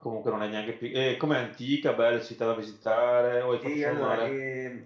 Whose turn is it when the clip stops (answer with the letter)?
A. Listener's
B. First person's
A